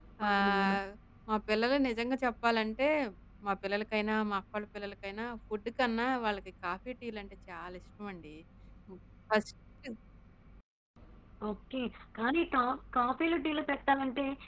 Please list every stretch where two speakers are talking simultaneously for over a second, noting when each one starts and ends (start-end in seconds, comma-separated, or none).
none